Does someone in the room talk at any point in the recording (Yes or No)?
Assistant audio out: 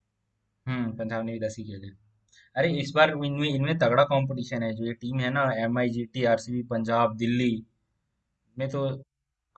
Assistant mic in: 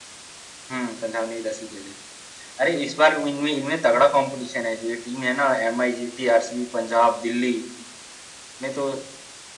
No